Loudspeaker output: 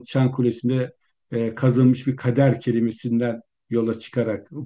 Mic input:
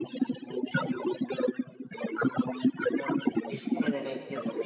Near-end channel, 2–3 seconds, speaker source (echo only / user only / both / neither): echo only